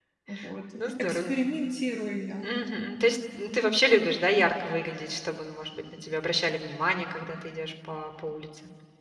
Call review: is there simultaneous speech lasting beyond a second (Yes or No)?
No